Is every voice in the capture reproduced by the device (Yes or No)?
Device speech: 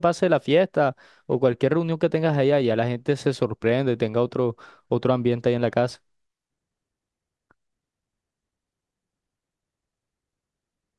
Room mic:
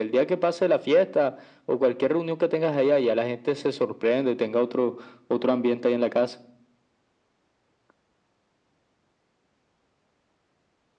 Yes